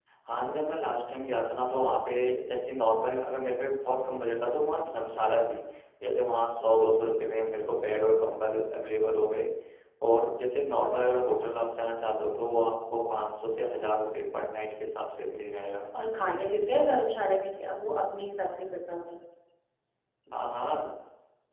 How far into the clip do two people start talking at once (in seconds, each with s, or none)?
none